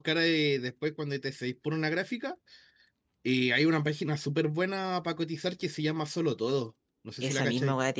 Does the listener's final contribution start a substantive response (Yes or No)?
Yes